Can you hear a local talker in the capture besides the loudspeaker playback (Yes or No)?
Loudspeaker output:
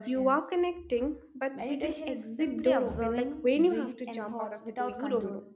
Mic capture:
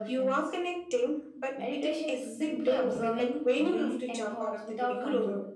No